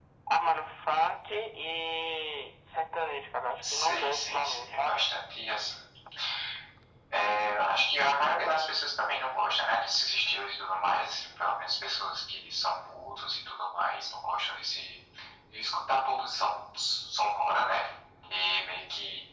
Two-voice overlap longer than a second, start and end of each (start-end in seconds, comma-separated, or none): 3.7-5.0